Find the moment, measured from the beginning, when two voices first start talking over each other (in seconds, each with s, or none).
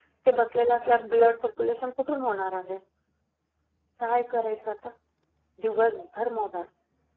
none